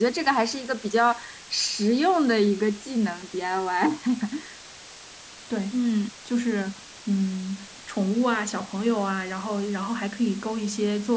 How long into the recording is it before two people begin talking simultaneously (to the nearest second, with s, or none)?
none